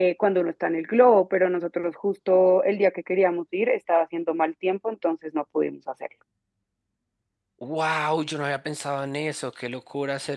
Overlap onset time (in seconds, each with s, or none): none